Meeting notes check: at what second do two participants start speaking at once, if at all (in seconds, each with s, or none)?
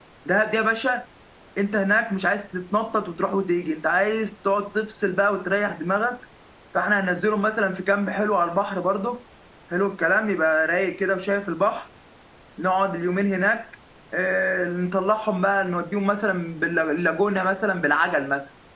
none